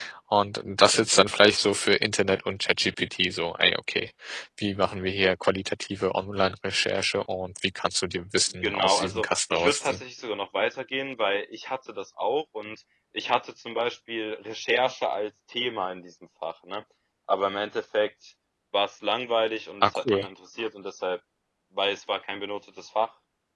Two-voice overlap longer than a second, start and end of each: 8.6-10.0

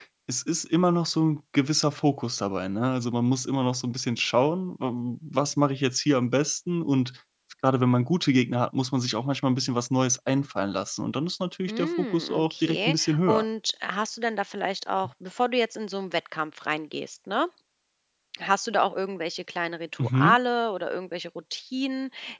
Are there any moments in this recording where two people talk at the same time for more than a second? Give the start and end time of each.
11.7-13.4

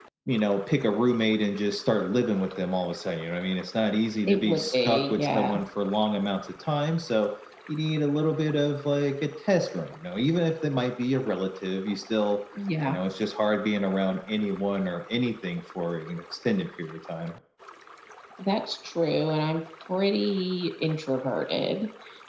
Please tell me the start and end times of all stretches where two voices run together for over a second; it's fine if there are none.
4.2-5.5

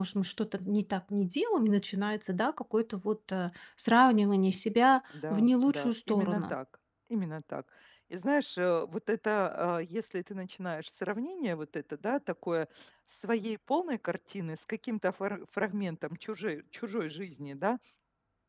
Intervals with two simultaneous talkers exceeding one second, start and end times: 5.3-6.5

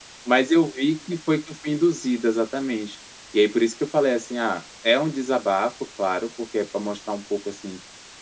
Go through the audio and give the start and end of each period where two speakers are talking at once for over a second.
none

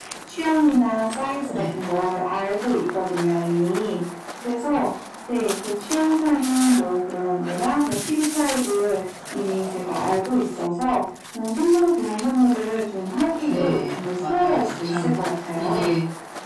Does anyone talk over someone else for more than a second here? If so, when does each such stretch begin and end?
13.4-15.1

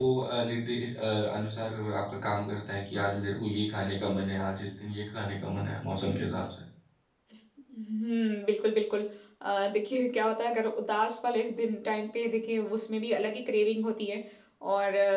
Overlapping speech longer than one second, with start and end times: none

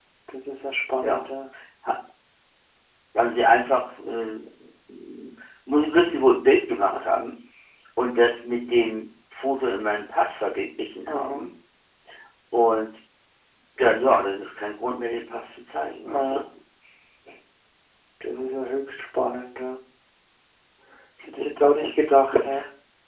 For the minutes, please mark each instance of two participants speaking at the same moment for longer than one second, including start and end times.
none

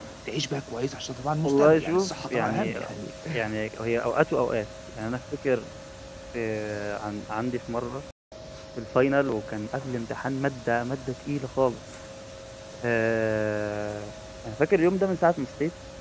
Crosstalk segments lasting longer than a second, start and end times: 1.4-2.8

